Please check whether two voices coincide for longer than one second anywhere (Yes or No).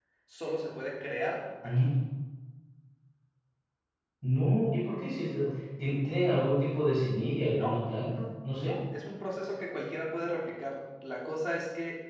No